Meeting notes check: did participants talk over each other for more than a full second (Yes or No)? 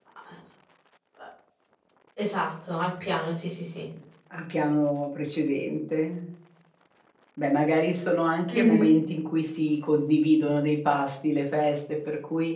No